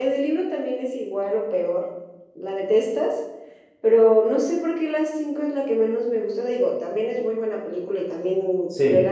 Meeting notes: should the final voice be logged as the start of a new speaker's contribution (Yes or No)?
No